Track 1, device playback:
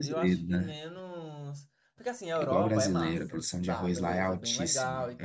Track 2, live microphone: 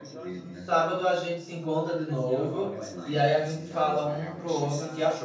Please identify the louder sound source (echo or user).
user